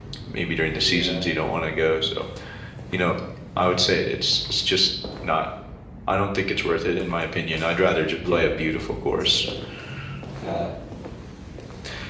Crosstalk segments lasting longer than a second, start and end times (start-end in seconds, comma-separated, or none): none